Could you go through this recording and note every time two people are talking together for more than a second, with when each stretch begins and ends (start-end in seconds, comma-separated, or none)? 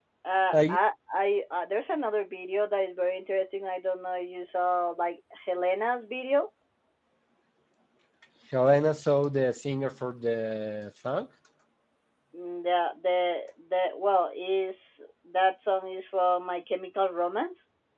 none